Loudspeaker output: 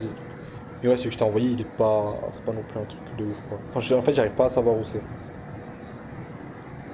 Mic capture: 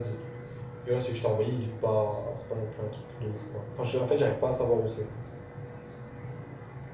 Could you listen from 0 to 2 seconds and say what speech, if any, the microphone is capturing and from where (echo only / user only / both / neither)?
echo only